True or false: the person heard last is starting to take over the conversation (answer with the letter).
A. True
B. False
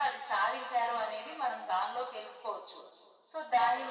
A